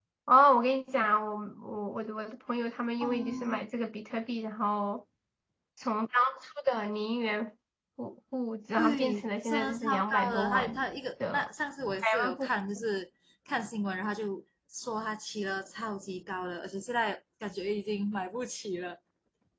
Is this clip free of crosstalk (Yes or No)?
No